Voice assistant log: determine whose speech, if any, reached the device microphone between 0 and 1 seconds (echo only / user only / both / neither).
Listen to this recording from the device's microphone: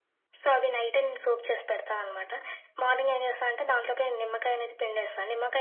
echo only